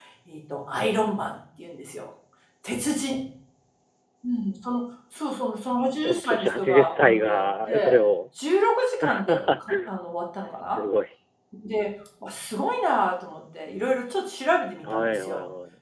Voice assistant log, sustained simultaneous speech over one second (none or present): present